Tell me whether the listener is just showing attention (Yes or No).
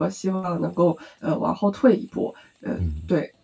No